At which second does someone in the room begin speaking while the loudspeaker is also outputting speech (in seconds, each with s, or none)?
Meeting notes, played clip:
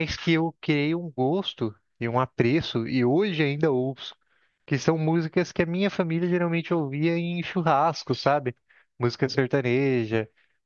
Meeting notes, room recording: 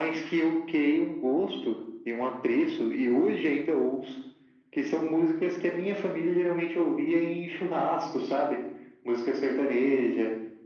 none